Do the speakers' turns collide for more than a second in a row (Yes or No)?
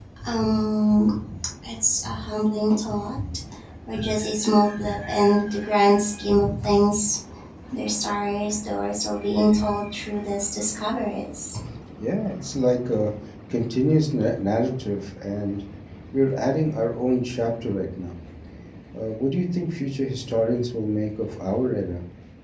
No